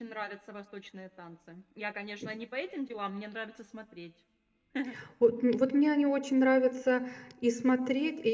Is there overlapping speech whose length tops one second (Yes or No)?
No